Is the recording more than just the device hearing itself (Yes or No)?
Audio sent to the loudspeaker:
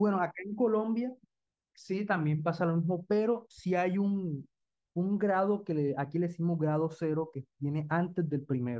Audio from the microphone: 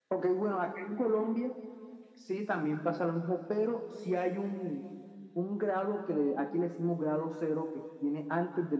No